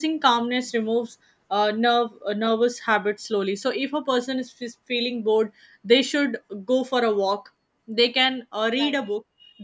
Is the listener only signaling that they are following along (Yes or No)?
Yes